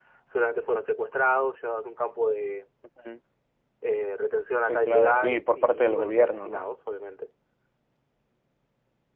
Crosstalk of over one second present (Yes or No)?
Yes